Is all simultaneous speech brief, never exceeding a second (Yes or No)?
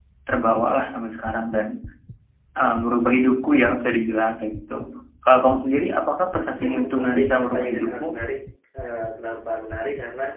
No